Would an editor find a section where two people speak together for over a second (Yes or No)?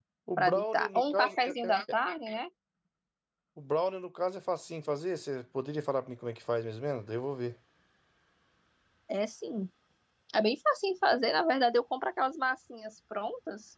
Yes